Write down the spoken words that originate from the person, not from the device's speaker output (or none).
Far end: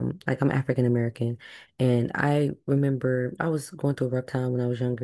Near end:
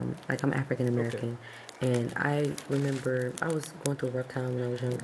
Okay.